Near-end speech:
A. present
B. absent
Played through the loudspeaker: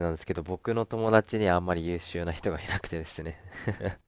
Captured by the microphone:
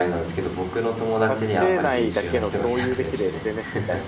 A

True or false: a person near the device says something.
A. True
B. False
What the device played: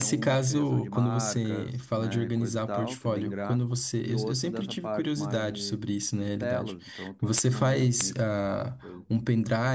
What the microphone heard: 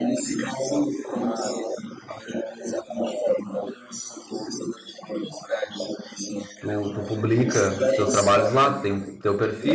A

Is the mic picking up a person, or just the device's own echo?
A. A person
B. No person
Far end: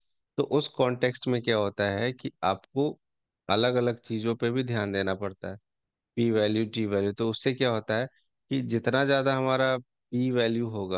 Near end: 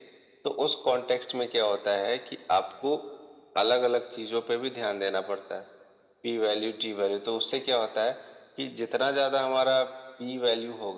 B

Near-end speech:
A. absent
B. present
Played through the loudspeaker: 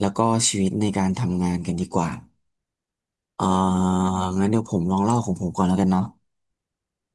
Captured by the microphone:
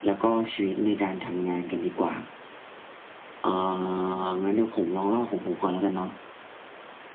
A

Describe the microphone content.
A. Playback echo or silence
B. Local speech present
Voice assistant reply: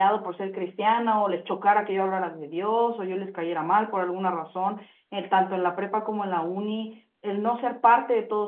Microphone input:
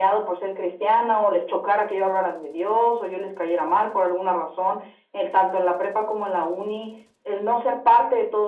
A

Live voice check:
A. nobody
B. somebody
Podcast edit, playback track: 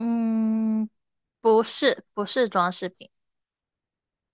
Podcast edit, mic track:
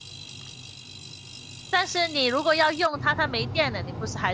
B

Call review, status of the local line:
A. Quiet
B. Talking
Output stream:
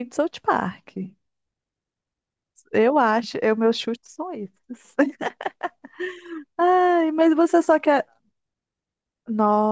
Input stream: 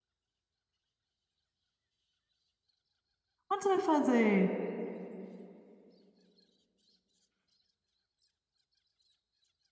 B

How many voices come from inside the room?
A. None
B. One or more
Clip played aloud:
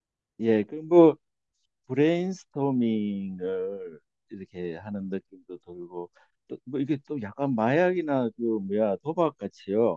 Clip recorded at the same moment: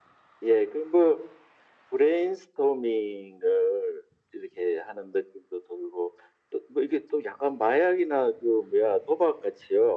A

